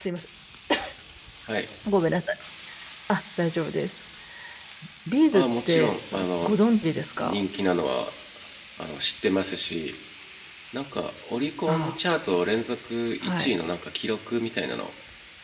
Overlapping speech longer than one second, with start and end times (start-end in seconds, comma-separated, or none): 5.3-6.5